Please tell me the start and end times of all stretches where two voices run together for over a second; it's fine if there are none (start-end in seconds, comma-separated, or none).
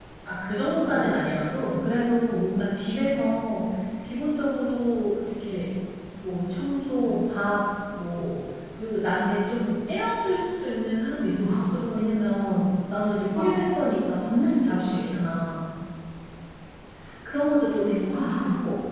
none